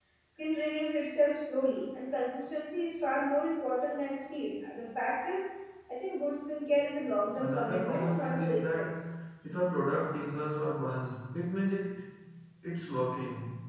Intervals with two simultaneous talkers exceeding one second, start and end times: 7.4-9.0

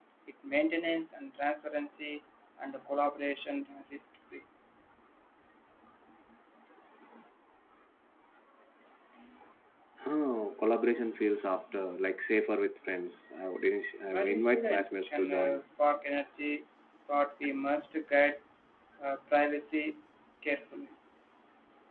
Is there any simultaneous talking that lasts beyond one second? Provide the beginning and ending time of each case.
14.0-15.6

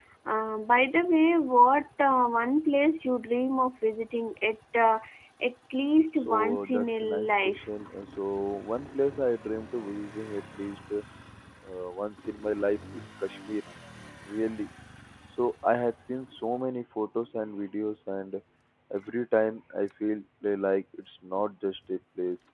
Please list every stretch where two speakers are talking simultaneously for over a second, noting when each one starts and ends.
6.2-7.7

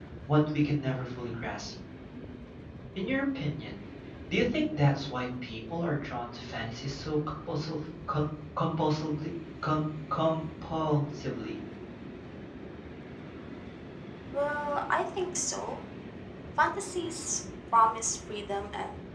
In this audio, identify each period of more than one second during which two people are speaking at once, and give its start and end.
none

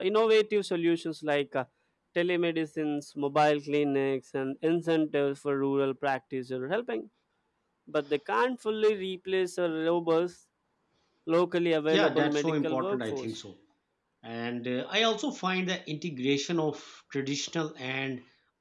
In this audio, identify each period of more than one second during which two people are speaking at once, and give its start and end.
11.9-13.3

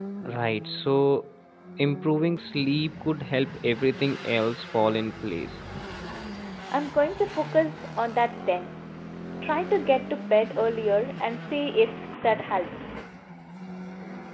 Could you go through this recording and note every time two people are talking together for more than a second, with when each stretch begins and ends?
none

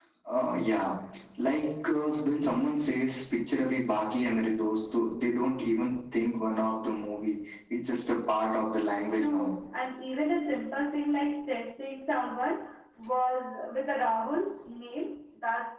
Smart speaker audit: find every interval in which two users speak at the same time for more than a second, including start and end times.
none

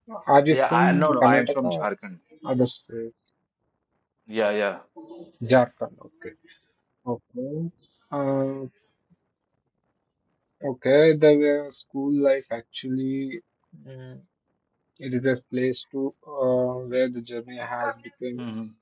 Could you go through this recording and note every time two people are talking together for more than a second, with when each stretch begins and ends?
0.5-1.9

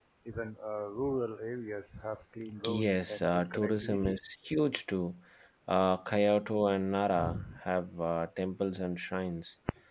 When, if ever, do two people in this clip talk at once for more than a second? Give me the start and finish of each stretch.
2.7-4.2

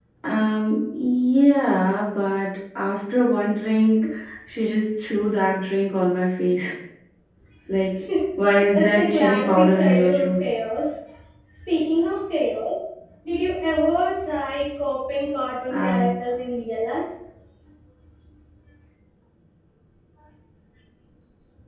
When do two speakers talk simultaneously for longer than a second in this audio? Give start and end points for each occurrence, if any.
8.8-10.5

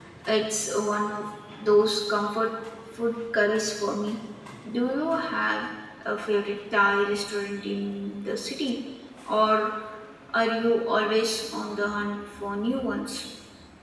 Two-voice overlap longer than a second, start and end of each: none

